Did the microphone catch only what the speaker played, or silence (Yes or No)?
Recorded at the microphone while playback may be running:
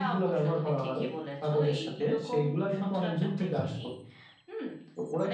Yes